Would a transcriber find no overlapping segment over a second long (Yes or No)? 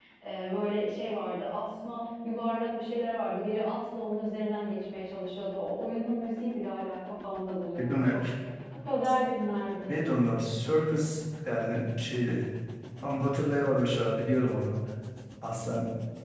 Yes